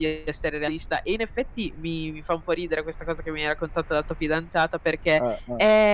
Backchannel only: Yes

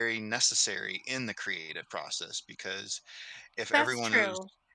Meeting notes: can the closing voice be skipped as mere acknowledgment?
Yes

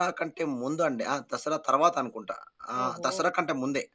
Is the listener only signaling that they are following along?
Yes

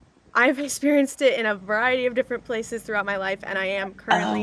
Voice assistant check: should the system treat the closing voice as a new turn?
No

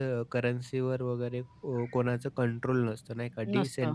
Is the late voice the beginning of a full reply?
Yes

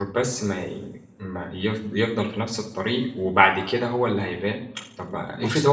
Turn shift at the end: No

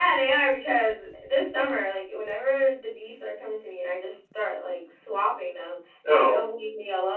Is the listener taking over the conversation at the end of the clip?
No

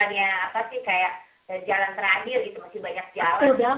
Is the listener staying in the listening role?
No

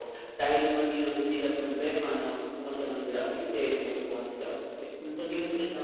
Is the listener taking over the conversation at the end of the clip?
No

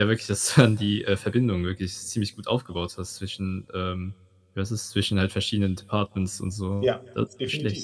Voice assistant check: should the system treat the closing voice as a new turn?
Yes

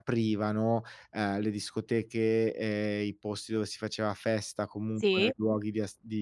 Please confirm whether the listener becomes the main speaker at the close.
No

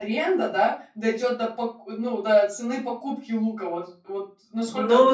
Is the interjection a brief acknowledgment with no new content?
No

